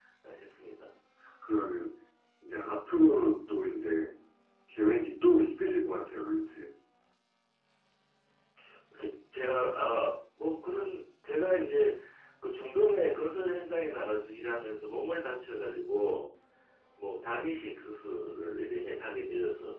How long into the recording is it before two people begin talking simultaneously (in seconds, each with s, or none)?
none